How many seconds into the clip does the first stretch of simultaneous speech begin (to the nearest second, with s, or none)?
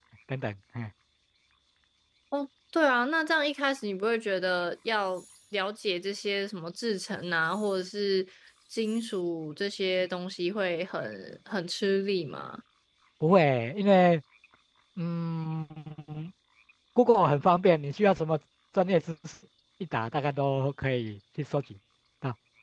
none